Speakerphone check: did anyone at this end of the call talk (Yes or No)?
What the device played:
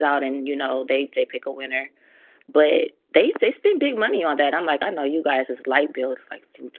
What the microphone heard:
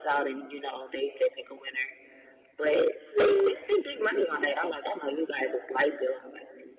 Yes